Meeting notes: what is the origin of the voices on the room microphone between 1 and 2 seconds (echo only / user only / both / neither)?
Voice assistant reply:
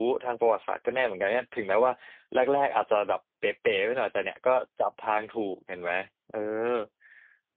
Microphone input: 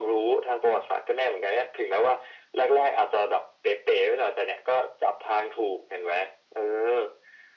echo only